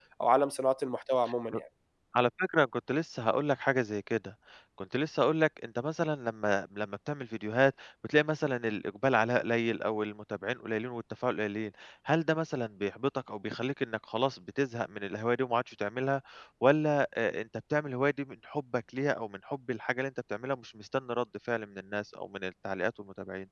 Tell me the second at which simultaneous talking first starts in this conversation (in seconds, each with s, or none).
none